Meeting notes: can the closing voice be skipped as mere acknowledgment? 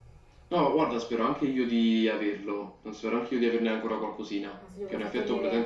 No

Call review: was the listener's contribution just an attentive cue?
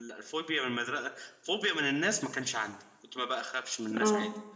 Yes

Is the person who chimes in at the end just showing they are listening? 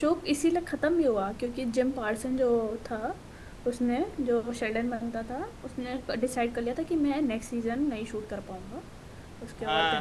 No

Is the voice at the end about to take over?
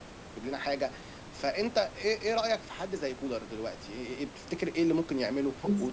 No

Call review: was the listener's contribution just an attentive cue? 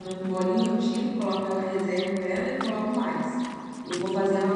Yes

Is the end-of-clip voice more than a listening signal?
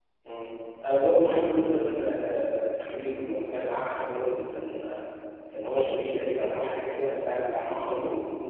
Yes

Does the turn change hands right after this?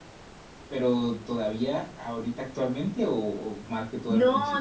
Yes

